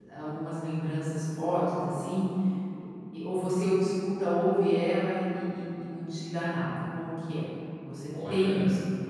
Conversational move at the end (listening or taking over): taking over